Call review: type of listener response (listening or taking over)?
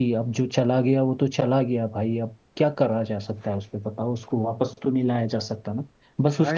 taking over